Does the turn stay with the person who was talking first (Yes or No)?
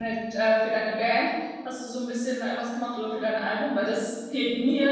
No